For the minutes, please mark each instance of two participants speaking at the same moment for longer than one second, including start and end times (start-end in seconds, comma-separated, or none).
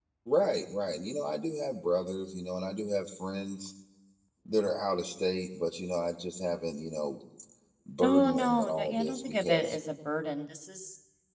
8.0-9.8